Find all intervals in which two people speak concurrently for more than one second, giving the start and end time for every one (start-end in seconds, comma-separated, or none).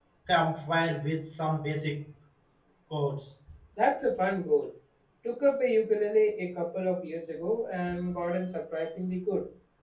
none